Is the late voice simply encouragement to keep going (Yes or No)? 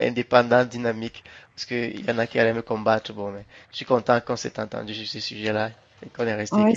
No